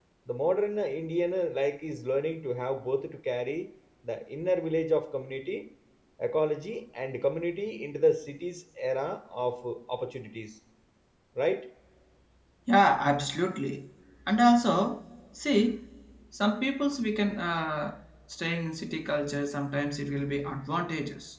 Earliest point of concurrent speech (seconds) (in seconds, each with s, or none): none